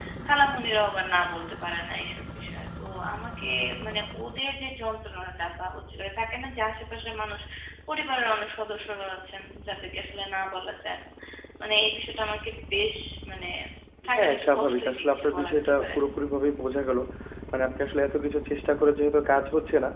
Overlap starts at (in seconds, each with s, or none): 14.2 s